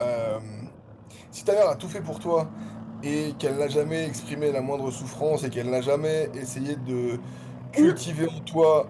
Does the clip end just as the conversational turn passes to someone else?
No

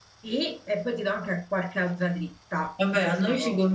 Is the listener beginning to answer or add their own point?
Yes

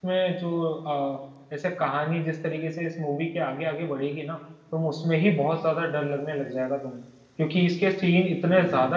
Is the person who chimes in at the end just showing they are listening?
Yes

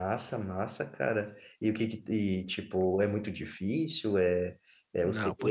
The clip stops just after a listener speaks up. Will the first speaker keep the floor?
No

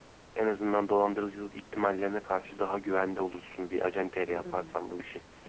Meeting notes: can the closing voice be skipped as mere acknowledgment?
No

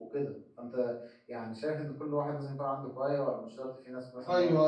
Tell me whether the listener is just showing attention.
No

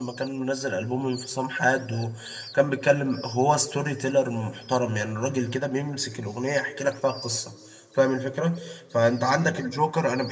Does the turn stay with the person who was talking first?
Yes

